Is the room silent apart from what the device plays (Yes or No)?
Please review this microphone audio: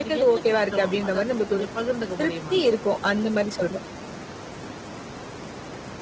Yes